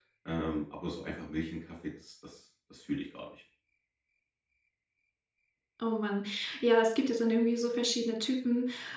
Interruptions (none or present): none